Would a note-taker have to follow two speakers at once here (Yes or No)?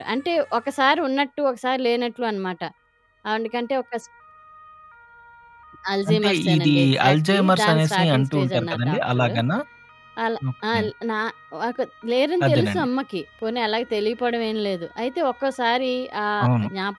Yes